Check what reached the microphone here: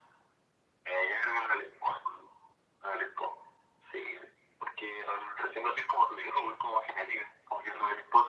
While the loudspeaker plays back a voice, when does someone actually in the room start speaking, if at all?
none

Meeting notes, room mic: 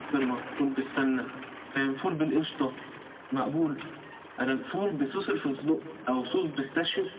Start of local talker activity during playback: none

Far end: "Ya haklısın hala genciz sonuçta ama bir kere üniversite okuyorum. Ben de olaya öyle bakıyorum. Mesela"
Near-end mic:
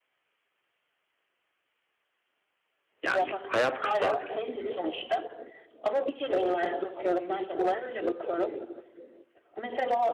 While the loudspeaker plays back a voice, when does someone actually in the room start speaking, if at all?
3.0 s

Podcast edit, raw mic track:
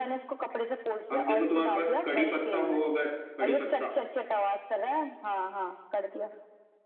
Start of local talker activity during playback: 1.2 s

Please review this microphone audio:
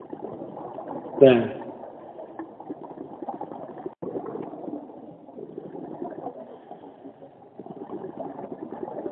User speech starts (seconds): 1.2 s

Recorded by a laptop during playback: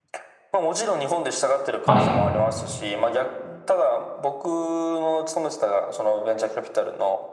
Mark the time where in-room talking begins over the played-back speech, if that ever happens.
1.8 s

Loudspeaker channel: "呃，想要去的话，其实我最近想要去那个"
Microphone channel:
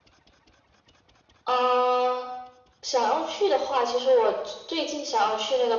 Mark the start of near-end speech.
none

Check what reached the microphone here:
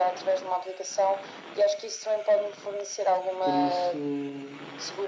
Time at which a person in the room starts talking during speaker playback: 3.4 s

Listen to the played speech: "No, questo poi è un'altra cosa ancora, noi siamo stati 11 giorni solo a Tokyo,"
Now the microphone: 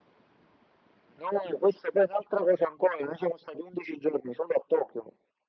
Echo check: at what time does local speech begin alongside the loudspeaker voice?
none

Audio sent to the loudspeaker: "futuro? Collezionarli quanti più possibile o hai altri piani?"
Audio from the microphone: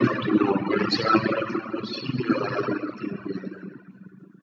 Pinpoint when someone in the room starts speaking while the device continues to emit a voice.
none

